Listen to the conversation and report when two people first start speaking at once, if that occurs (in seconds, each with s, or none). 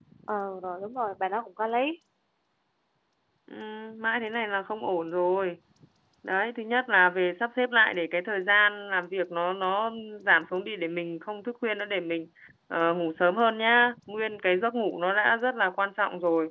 none